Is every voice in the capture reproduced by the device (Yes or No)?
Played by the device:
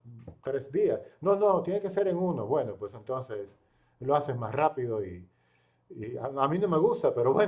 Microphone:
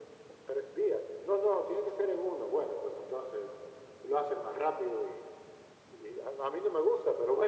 Yes